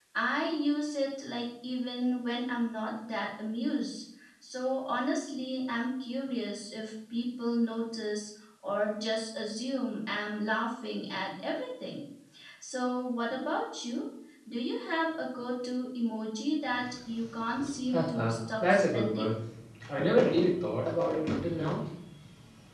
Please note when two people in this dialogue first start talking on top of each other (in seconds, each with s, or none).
17.9 s